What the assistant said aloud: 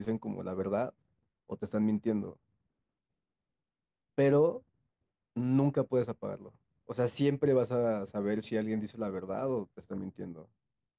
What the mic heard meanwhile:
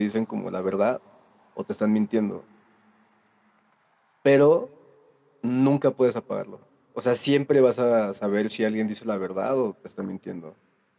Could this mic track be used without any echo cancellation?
No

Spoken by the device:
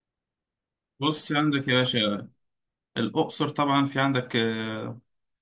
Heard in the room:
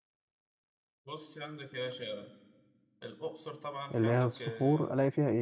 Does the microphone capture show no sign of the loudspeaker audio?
No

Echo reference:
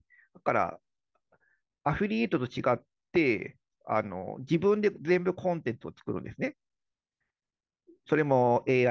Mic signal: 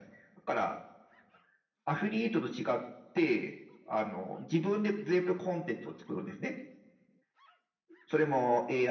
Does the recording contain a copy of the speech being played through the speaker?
Yes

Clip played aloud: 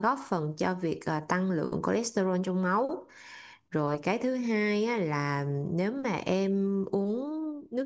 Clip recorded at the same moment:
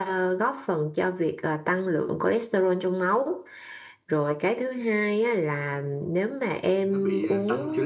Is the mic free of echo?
No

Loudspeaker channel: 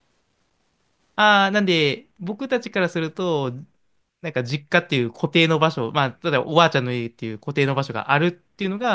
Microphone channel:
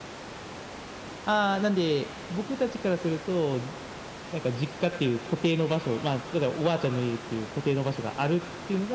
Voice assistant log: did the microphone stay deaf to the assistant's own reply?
No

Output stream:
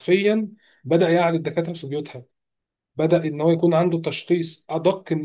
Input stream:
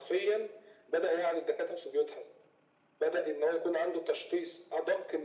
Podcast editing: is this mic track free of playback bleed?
No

